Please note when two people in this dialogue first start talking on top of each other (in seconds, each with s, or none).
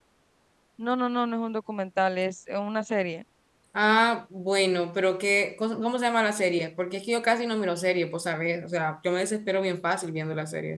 none